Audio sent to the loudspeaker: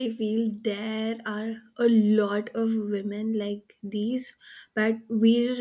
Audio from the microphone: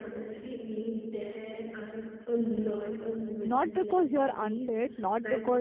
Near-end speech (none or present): present